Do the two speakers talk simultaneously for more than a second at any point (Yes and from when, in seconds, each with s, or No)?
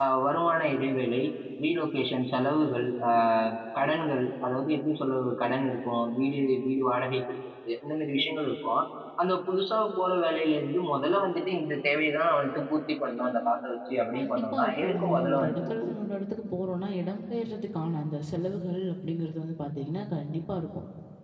Yes, from 14.1 s